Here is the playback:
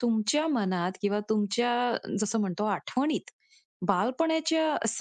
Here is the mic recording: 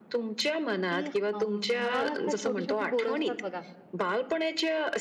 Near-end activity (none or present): present